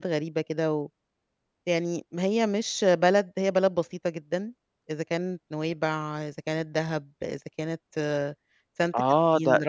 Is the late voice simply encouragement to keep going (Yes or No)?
No